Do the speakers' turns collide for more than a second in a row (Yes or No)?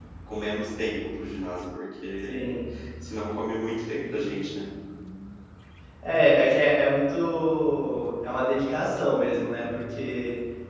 No